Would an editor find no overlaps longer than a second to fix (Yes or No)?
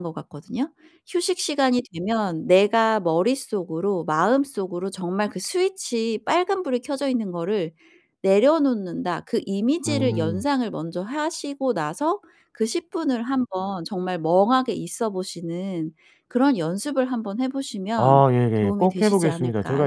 No